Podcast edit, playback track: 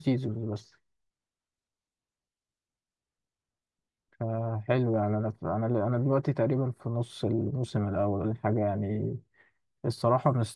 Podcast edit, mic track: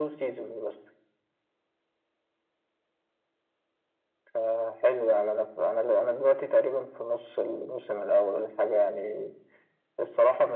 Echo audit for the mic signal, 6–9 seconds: echo only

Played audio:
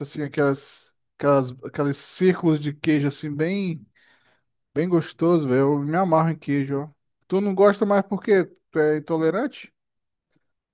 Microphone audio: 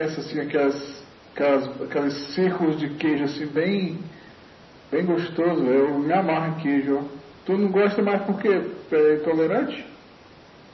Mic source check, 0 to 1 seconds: echo only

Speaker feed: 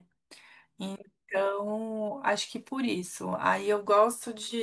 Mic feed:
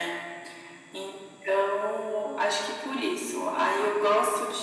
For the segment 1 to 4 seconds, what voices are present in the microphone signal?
echo only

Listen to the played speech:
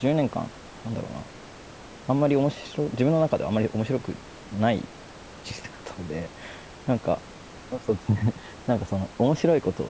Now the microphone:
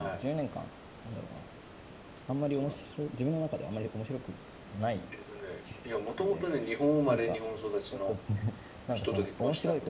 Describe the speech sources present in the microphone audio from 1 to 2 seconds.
echo only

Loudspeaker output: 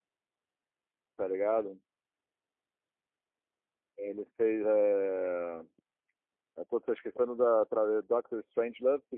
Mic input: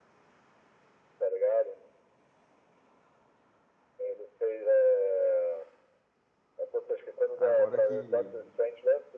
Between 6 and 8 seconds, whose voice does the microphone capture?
both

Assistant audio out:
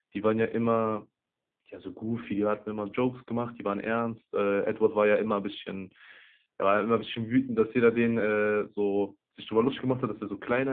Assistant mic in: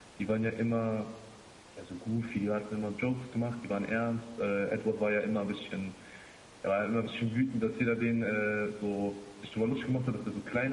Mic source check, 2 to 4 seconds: echo only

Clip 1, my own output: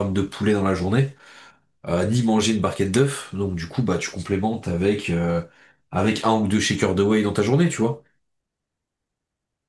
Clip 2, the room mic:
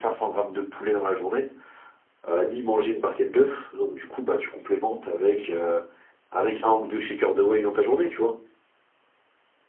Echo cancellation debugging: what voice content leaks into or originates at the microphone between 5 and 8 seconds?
echo only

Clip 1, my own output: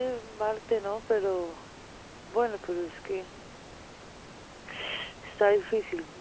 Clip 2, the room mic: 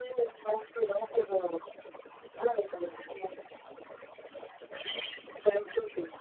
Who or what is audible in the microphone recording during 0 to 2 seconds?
echo only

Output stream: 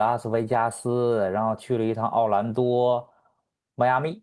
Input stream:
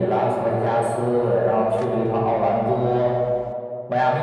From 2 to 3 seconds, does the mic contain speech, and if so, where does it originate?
echo only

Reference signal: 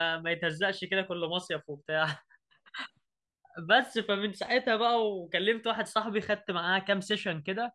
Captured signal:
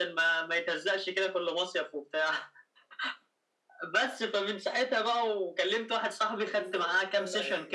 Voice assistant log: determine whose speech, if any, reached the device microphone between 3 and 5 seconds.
echo only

